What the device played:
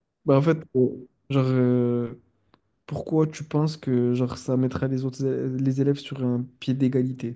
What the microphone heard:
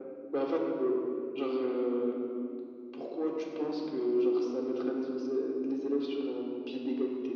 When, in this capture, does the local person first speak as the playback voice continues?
none

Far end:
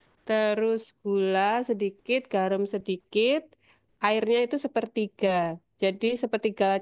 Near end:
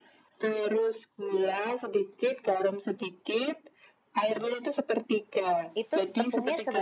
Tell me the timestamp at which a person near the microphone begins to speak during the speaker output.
5.8 s

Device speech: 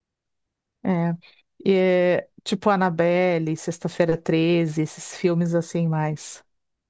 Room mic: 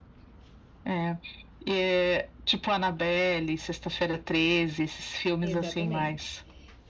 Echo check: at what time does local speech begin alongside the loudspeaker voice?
5.4 s

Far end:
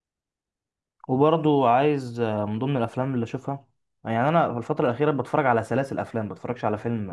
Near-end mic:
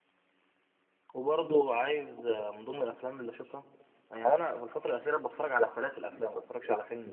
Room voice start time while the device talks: none

